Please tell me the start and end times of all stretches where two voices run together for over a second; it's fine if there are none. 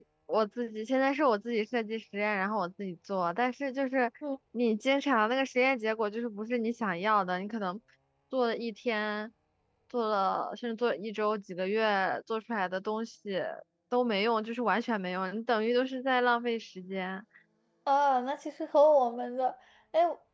none

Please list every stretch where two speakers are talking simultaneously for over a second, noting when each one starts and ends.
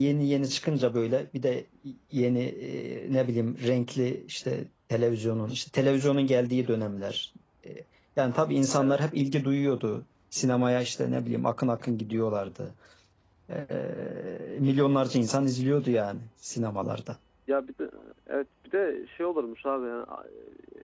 none

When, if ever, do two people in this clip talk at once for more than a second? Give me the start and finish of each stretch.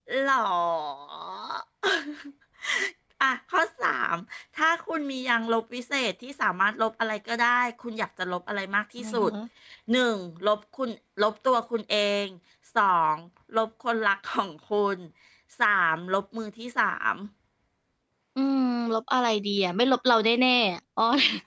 none

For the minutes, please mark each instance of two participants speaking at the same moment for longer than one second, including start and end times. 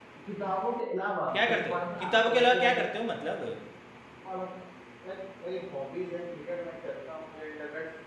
1.5-2.8

